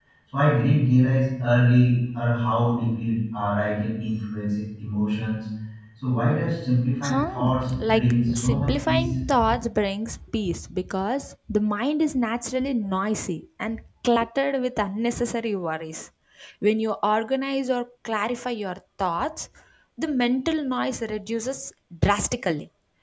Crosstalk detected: Yes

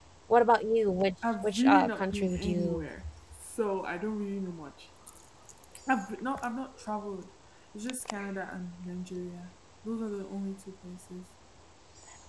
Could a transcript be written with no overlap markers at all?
No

